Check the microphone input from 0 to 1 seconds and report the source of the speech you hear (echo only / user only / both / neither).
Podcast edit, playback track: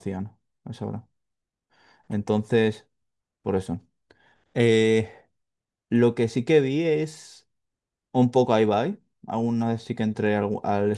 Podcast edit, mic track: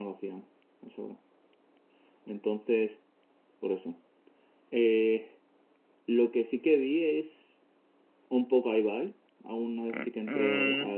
echo only